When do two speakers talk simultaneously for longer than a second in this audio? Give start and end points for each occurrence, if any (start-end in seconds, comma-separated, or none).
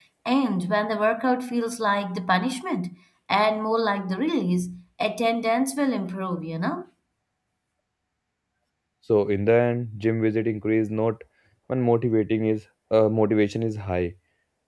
none